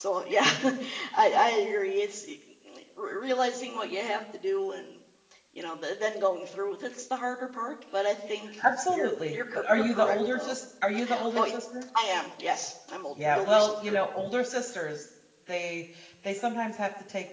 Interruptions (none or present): present